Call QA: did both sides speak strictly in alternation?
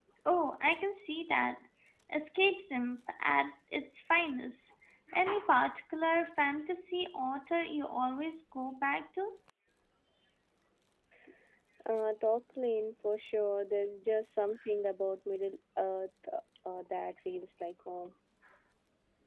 Yes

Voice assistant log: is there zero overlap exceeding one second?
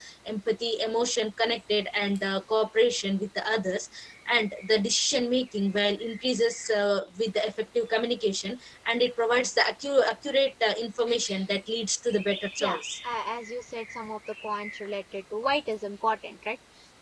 Yes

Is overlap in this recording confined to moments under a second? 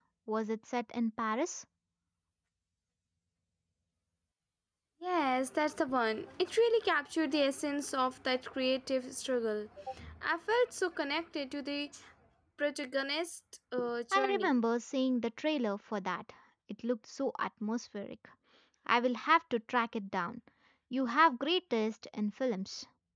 Yes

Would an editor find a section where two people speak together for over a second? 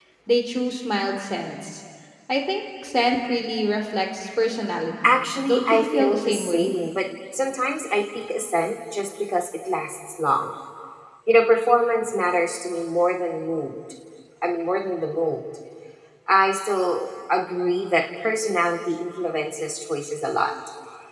Yes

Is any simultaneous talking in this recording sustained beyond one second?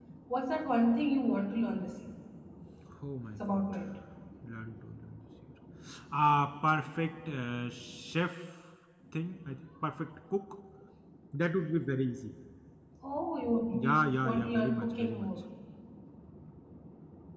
Yes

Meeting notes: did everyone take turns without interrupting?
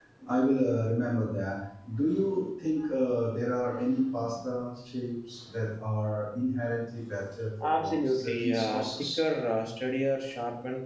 No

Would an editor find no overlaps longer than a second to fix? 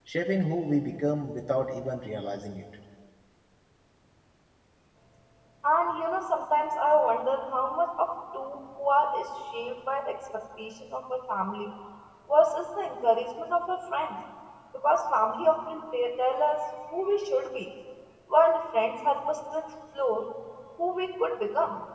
Yes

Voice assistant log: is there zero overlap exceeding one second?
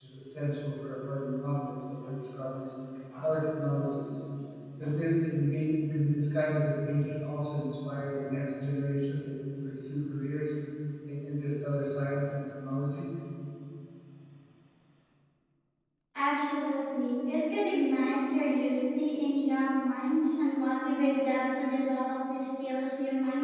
Yes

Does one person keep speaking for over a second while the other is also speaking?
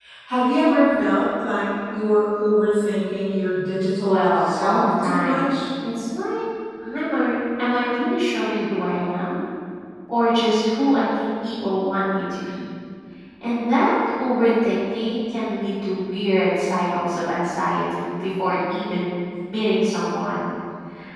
Yes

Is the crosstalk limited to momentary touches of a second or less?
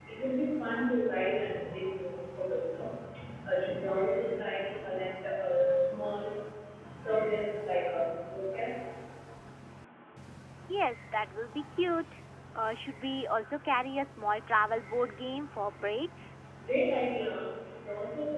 Yes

